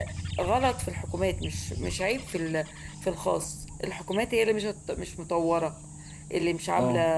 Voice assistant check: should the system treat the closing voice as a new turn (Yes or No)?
Yes